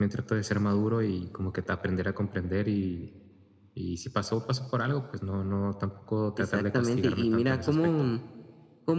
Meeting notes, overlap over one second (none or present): present